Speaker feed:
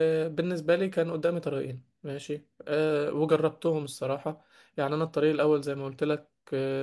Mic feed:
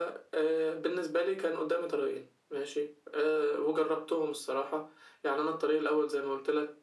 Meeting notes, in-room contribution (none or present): none